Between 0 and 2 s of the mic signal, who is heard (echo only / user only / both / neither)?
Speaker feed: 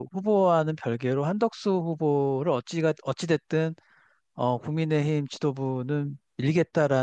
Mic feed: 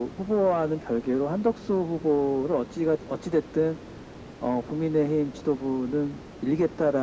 echo only